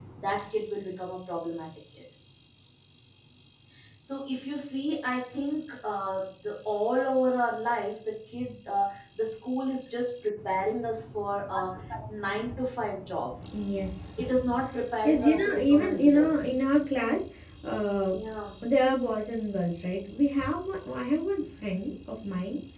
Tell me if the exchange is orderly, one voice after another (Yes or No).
No